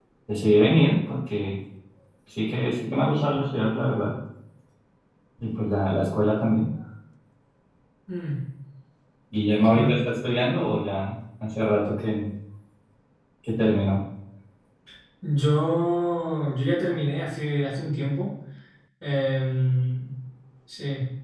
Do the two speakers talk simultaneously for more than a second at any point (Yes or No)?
No